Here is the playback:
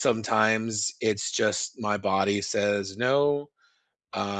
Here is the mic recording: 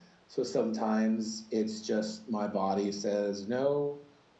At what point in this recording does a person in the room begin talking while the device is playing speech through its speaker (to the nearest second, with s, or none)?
none